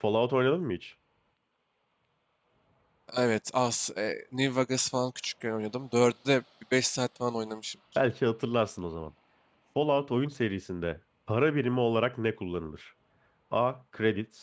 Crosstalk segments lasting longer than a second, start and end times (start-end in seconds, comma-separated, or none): none